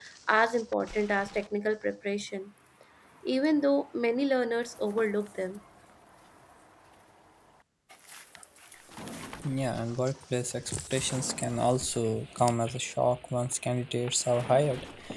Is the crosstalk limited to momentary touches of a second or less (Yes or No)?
Yes